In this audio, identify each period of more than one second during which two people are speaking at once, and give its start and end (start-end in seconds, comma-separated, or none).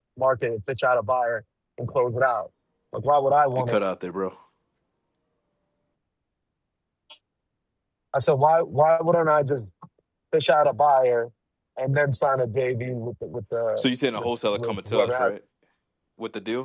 13.8-15.3